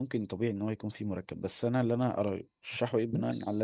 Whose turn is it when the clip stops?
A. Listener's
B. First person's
B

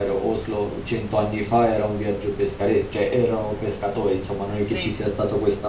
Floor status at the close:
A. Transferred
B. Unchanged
B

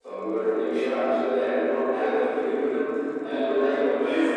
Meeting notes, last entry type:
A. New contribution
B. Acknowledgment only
B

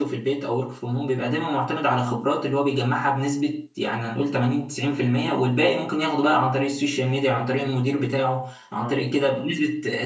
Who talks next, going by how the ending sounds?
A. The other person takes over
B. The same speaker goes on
B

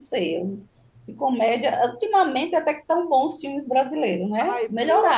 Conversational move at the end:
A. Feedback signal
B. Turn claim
B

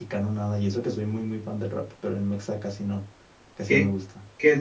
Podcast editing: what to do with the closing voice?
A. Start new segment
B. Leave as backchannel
A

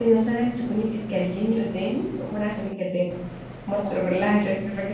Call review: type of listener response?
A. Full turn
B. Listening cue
B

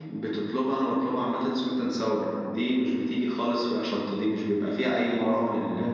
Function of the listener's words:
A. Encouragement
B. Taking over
A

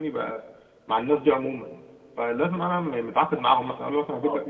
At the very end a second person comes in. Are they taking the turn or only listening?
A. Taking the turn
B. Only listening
B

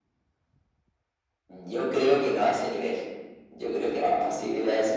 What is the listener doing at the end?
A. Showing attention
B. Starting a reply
A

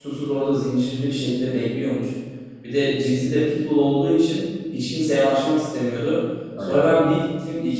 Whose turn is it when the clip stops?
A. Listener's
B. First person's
B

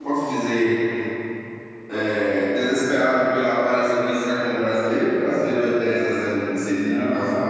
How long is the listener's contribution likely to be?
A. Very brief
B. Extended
B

